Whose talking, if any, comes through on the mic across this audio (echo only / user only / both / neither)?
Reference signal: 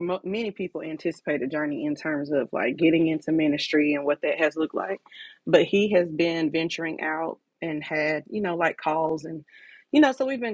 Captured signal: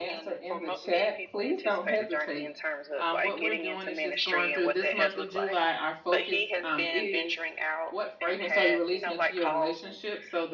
both